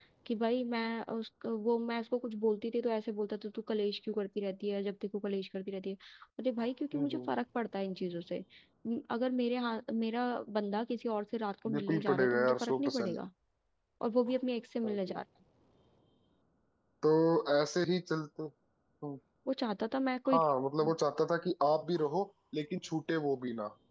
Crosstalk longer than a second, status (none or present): present